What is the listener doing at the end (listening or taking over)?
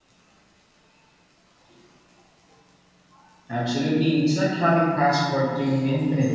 taking over